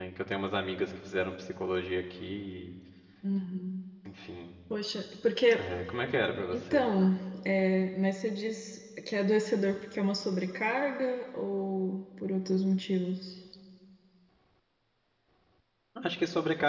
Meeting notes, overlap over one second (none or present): none